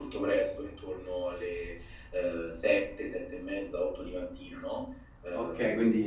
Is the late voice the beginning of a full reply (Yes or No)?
Yes